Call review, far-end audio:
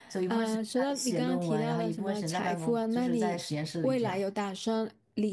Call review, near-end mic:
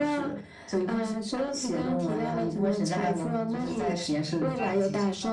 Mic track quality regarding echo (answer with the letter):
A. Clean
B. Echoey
B